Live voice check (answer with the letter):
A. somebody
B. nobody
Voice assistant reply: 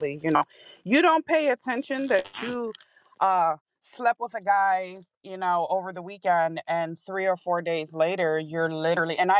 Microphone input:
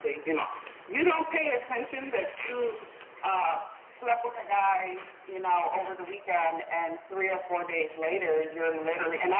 B